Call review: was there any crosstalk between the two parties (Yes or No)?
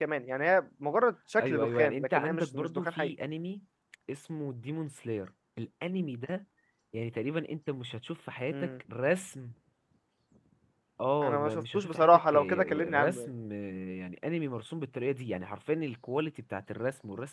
Yes